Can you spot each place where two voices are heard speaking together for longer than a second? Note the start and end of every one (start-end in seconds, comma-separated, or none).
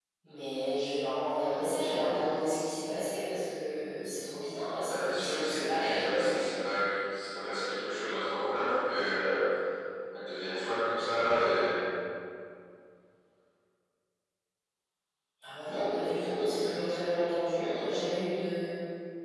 4.8-6.4